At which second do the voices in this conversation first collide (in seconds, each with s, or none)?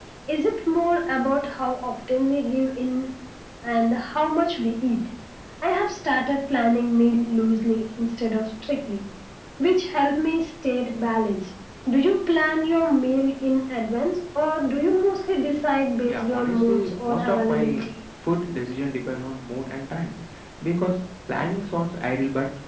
16.1 s